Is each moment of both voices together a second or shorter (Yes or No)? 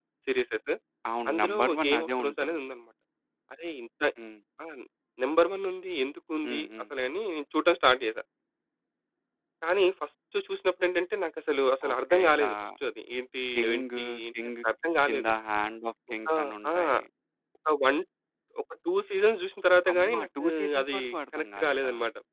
No